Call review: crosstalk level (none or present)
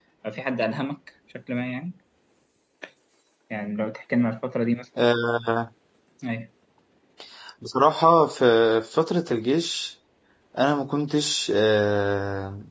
none